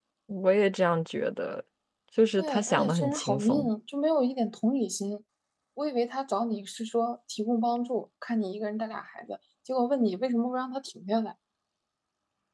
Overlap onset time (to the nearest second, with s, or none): 2 s